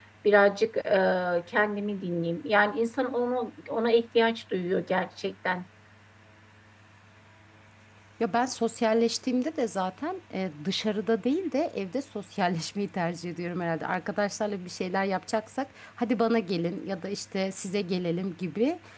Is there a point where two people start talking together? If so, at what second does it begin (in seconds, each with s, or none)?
none